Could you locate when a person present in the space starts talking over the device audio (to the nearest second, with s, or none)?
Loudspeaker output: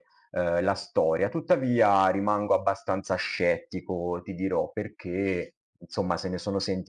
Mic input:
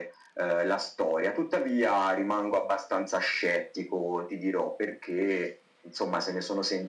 none